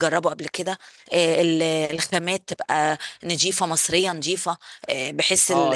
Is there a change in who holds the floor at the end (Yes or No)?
Yes